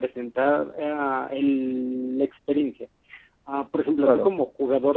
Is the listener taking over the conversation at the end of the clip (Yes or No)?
No